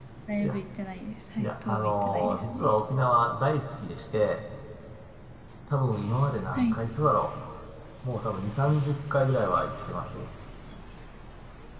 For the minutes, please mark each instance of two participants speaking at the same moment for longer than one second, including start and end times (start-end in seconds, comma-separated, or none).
1.4-2.7